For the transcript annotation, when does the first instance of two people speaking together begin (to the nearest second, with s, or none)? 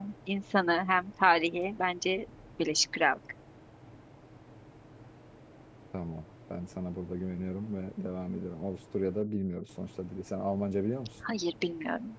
none